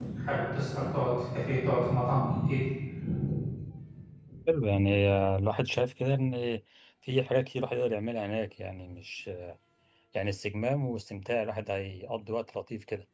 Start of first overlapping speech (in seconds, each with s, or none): none